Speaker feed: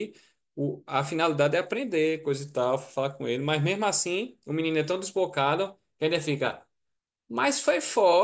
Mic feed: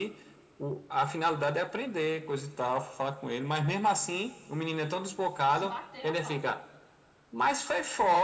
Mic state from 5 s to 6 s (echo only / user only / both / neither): both